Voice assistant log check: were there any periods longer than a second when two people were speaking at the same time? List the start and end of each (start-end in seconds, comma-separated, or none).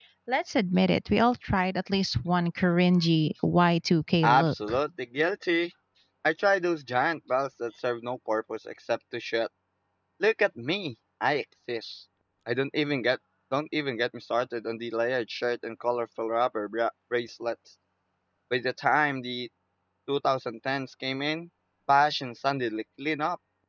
none